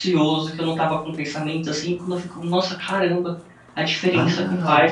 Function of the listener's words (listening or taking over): taking over